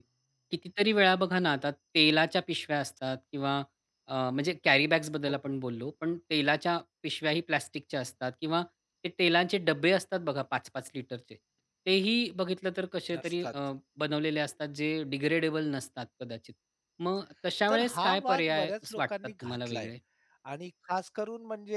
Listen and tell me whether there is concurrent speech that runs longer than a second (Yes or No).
Yes